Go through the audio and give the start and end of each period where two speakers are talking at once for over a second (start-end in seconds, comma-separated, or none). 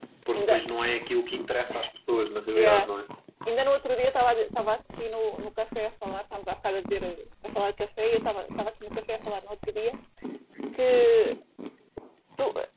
none